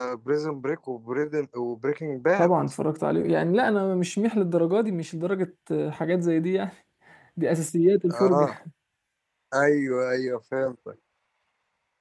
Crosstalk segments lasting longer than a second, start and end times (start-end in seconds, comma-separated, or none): none